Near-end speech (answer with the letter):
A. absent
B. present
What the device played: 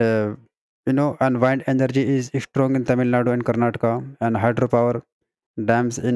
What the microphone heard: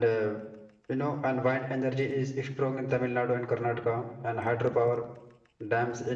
A